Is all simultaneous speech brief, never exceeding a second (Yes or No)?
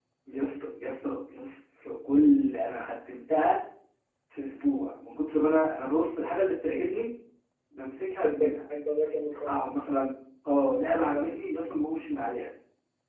Yes